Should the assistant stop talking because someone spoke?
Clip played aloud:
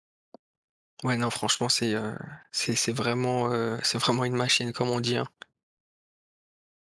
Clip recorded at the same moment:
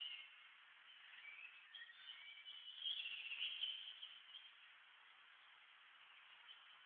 No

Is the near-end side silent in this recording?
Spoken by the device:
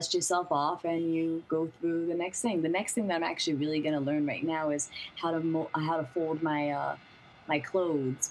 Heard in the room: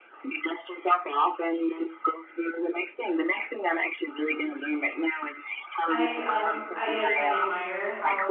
No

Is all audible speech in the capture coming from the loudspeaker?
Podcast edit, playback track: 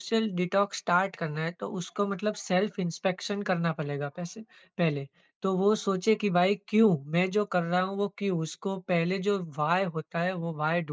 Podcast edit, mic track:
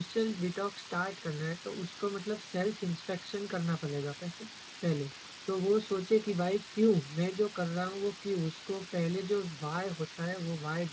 Yes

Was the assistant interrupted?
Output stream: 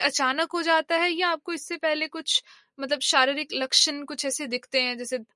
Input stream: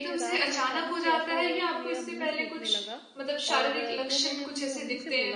Yes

